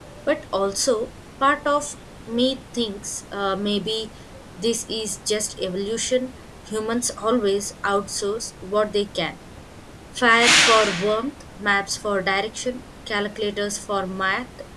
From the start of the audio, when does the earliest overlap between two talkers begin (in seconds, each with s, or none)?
none